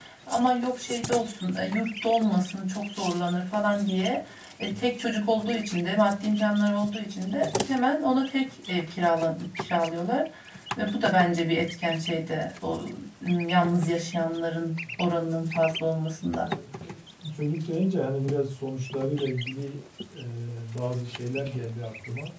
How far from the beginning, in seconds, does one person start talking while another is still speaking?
none

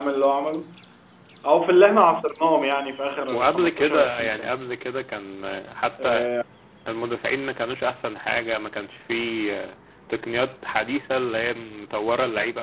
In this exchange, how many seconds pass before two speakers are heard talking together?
3.3 s

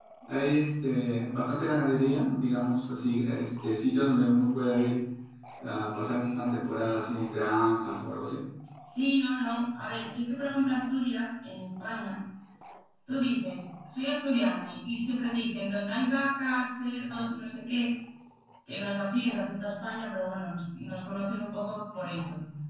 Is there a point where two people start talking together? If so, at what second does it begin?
none

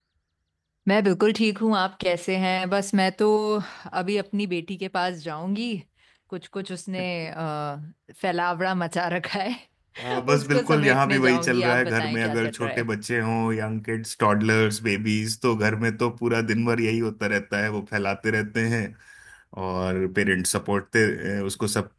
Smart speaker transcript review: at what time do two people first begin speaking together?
10.0 s

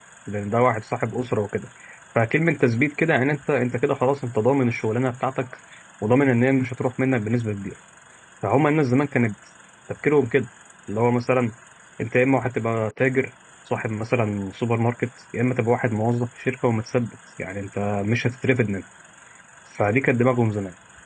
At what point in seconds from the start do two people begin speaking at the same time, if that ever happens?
none

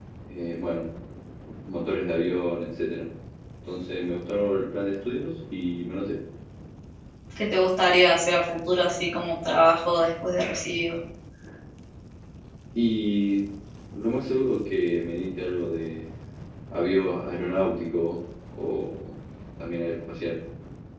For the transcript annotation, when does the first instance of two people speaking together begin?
none

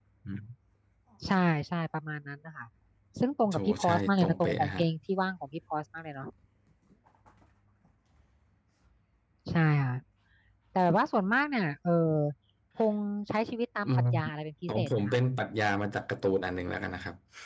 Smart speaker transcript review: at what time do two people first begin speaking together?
3.5 s

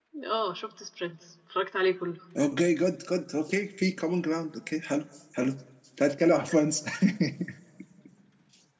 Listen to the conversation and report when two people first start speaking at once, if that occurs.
none

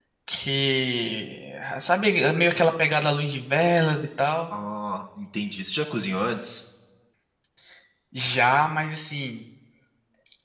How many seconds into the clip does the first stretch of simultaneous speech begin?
none

